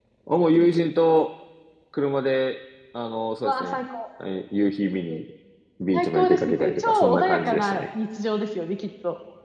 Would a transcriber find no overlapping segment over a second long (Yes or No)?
No